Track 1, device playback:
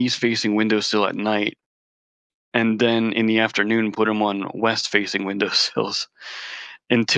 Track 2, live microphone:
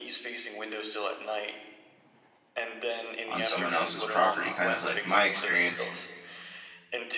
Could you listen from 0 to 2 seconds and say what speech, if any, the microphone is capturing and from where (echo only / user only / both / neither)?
echo only